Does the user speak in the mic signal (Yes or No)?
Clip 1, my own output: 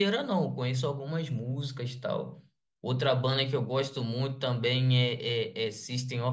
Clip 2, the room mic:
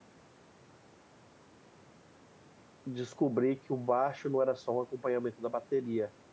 Yes